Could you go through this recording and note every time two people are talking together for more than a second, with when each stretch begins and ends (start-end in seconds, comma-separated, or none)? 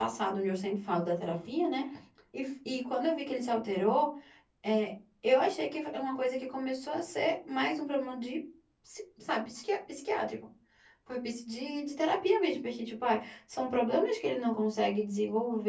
none